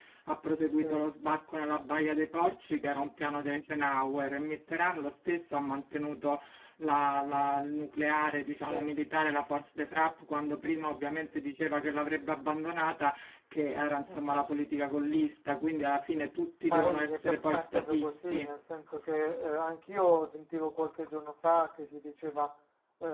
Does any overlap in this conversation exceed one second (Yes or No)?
Yes